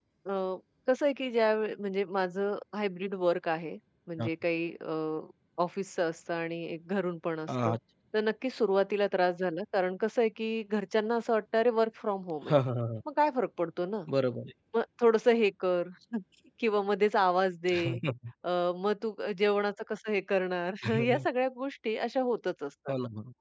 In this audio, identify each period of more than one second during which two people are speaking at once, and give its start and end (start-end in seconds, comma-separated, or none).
none